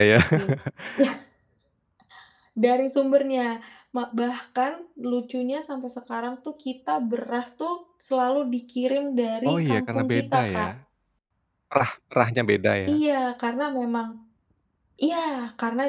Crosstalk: present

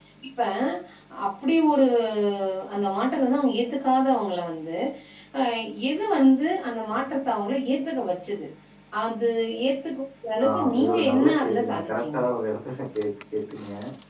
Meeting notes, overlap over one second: present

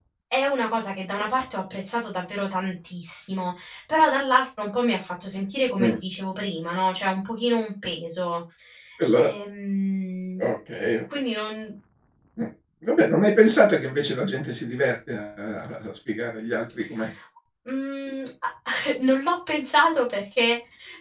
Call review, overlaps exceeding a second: none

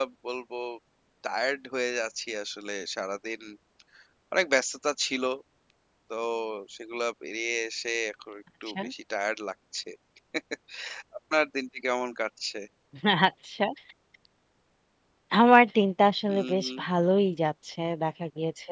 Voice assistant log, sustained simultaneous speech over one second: none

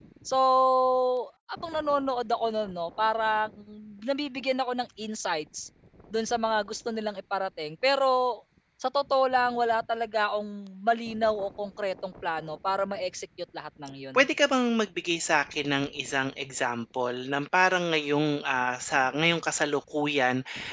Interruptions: none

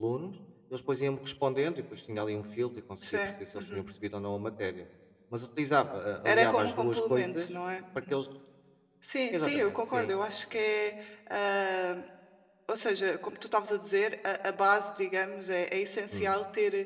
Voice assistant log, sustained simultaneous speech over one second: present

